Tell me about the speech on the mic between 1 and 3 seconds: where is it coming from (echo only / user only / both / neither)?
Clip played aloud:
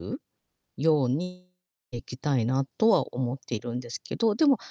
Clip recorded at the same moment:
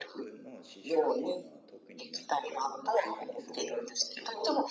both